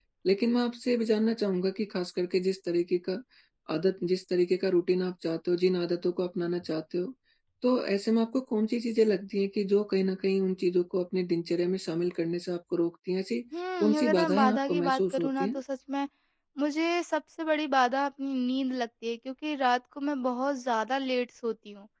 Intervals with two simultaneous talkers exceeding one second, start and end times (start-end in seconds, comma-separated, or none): 13.8-15.6